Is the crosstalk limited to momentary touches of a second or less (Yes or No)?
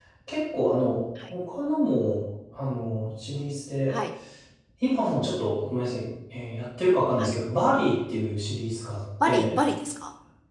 Yes